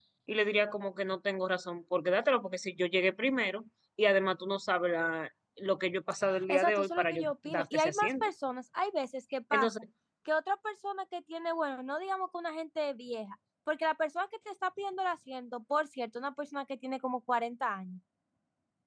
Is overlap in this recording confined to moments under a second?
No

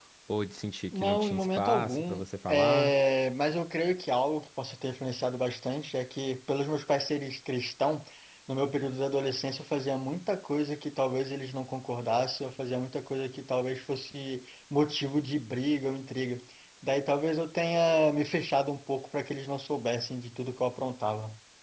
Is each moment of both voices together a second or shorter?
No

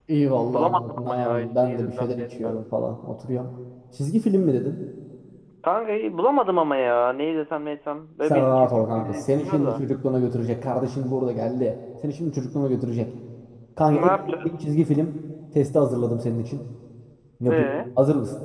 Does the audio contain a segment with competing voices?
Yes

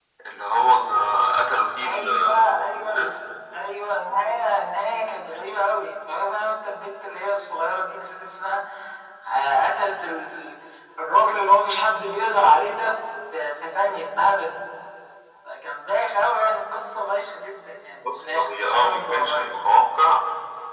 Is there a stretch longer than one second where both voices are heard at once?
Yes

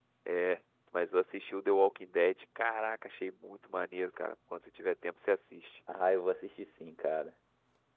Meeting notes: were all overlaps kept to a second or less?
Yes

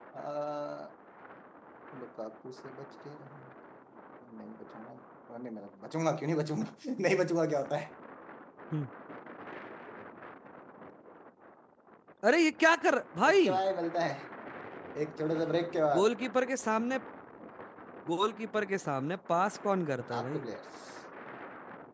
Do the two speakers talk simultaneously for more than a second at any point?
No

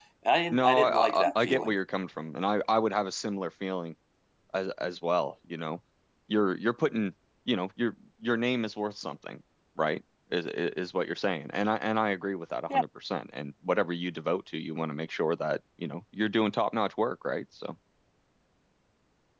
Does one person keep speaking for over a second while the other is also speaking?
Yes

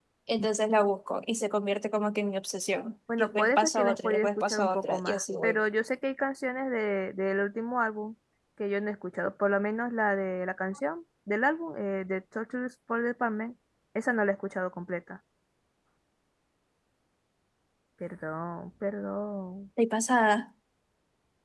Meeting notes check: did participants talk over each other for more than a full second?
Yes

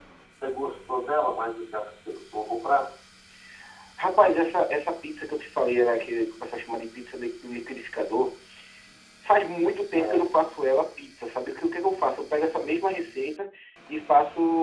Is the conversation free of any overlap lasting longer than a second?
Yes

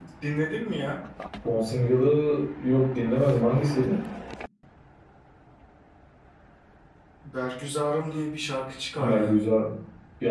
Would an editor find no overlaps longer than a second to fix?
Yes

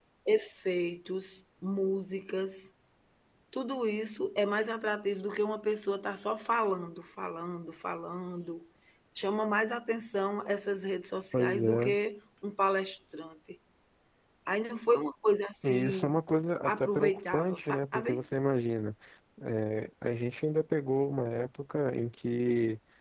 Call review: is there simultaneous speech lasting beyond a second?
Yes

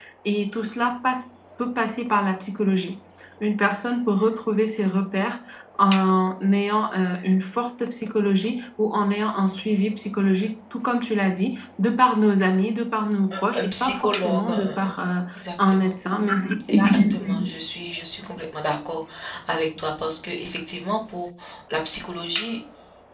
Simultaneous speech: Yes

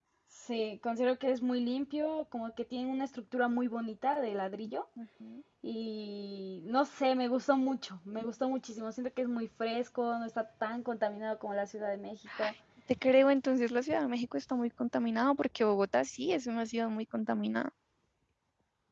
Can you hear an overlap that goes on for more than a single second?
No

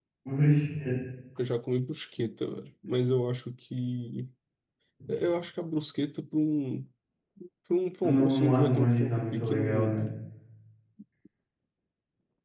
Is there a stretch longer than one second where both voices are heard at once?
Yes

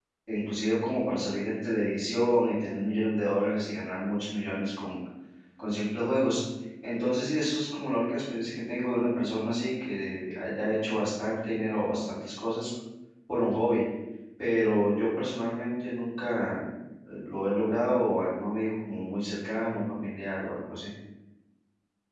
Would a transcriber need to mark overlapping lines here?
No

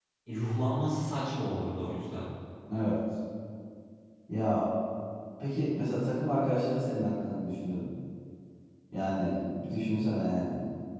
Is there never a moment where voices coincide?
Yes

